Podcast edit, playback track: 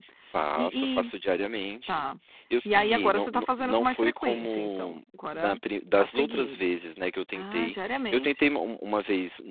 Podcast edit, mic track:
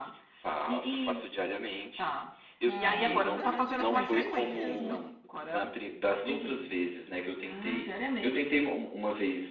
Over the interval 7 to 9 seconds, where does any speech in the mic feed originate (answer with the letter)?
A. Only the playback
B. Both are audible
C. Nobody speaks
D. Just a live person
A